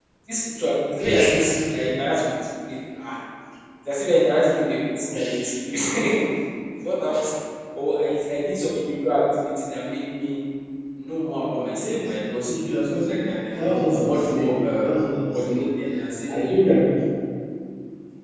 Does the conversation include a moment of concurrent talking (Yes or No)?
Yes